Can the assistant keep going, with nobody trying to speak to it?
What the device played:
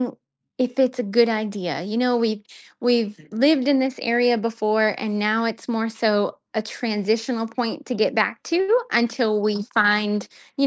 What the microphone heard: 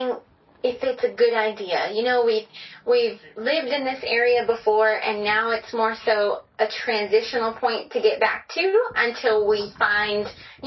Yes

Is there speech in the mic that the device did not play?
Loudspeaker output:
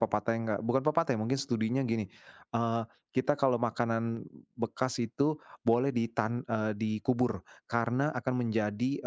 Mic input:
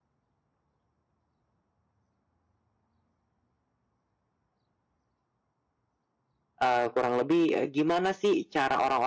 Yes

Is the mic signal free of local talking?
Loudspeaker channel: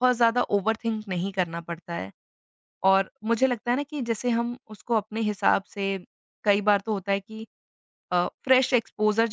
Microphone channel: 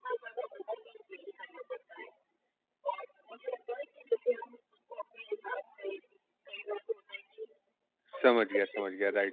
No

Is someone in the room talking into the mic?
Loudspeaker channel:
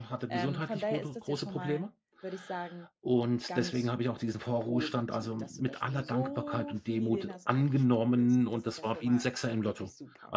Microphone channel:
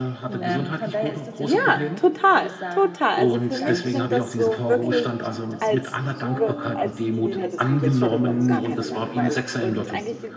Yes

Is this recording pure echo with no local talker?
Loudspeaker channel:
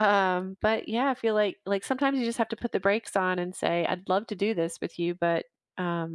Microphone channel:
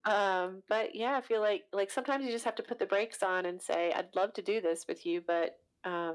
Yes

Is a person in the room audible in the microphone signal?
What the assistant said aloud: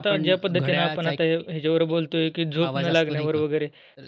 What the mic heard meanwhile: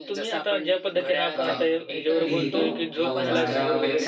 Yes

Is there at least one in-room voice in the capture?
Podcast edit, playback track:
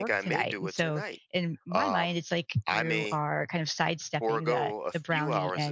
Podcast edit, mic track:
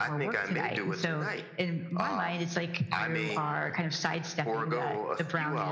Yes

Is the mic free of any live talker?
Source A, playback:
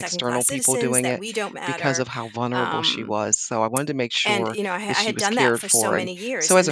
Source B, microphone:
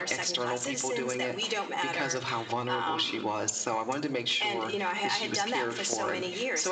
Yes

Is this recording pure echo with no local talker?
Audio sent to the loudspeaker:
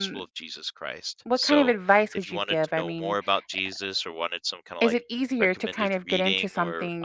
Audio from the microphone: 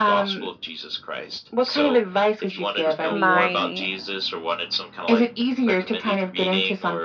No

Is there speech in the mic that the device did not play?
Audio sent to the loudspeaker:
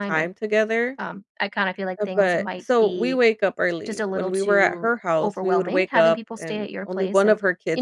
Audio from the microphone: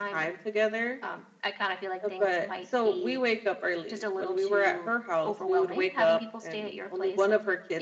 No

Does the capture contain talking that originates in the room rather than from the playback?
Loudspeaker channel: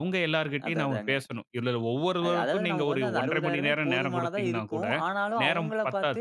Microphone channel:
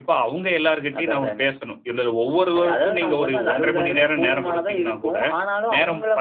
No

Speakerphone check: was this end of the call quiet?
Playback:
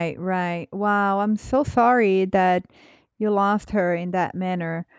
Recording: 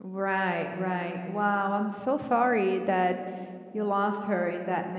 Yes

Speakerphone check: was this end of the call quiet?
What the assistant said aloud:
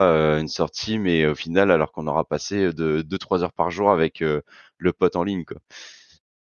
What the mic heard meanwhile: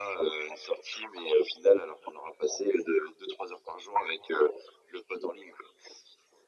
Yes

